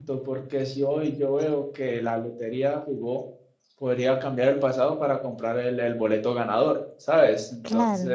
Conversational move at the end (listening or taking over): listening